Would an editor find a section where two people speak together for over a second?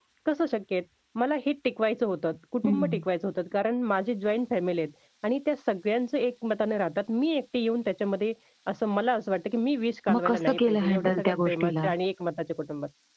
Yes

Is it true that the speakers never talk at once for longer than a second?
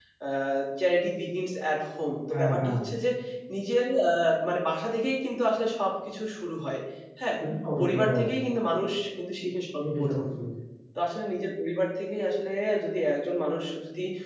Yes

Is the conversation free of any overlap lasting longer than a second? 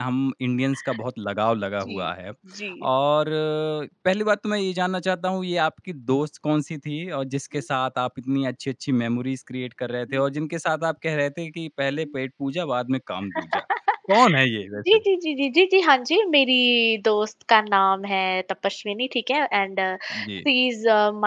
Yes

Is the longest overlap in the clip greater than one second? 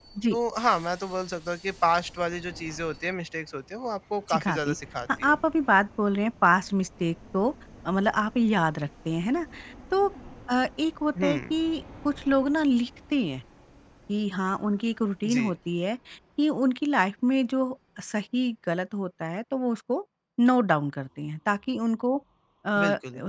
No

